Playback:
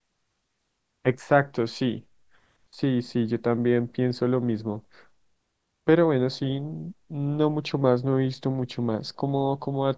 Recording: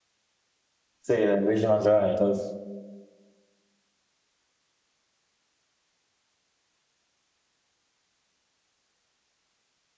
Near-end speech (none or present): present